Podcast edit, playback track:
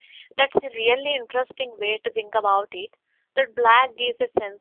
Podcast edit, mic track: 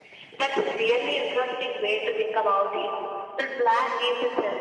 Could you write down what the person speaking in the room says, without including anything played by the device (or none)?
none